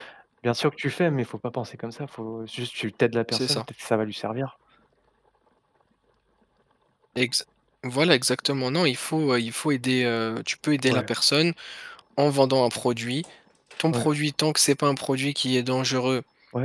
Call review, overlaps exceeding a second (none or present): none